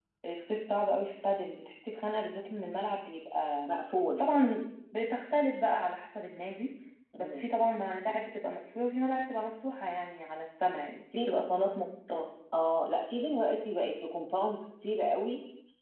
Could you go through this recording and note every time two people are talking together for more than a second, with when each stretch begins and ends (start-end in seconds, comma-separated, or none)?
none